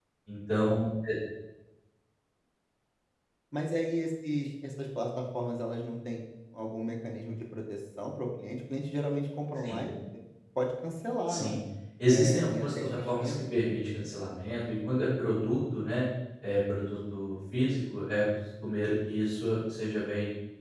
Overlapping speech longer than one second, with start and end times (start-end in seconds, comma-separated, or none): 12.1-13.3